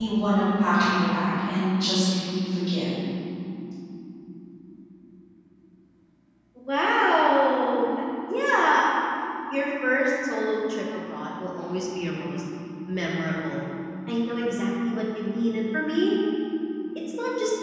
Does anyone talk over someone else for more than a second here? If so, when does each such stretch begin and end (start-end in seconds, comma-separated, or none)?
none